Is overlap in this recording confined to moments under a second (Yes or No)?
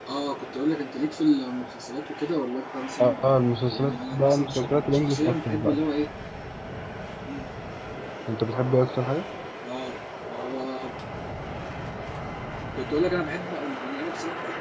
No